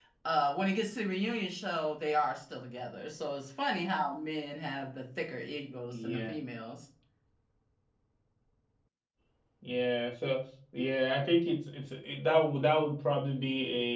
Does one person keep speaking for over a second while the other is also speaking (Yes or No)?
No